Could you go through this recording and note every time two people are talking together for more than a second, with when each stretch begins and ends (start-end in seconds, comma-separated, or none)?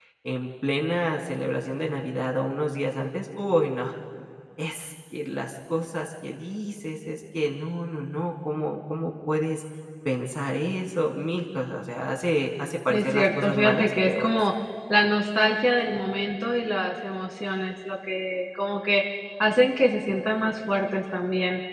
12.9-14.3